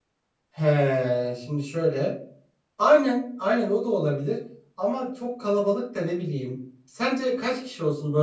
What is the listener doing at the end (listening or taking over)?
listening